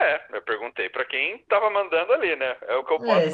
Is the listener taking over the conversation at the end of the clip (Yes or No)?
Yes